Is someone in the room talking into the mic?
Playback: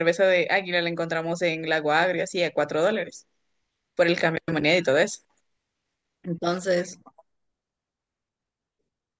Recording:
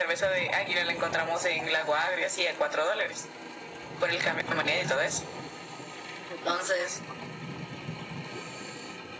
No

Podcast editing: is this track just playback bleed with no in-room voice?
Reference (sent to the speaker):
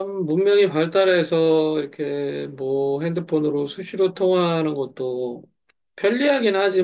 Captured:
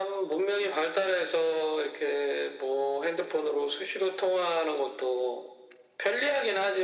Yes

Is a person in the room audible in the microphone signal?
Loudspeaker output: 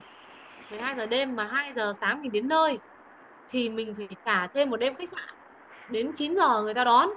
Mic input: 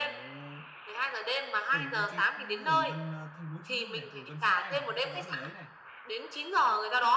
Yes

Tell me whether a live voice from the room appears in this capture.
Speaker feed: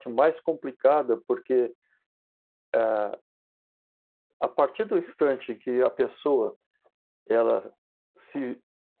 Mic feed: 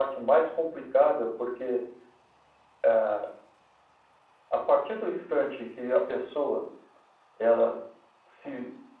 No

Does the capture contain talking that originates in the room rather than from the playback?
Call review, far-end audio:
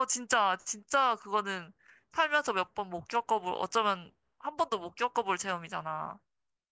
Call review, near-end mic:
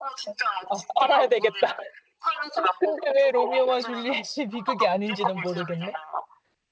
Yes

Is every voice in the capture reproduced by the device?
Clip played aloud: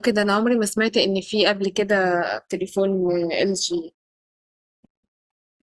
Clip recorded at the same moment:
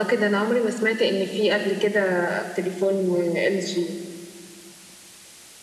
Yes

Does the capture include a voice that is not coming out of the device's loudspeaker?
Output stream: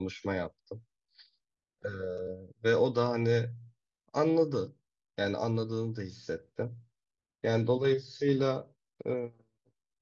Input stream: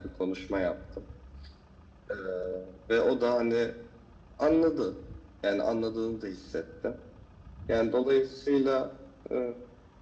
No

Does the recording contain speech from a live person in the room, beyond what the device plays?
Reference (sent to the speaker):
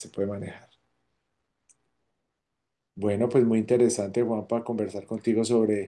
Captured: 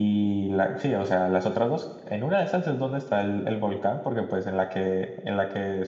Yes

